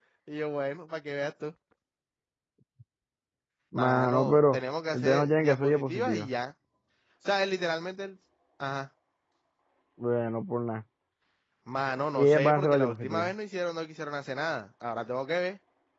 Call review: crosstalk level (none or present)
present